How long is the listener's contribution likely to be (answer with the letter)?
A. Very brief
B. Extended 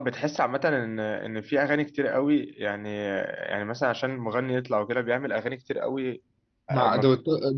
B